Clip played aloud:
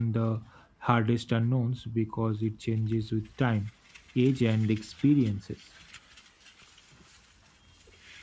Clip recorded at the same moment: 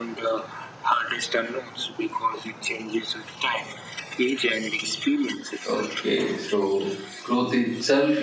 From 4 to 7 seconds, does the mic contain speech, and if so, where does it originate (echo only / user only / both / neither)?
both